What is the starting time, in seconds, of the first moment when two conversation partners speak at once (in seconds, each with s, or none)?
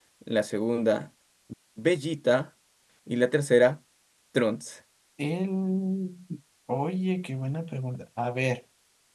none